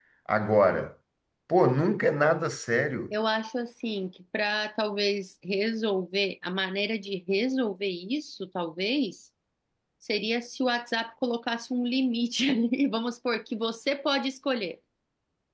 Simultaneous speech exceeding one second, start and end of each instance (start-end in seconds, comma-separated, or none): none